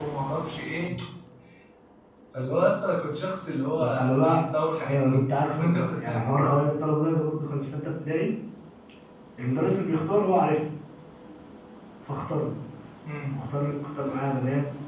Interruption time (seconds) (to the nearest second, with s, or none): 4 s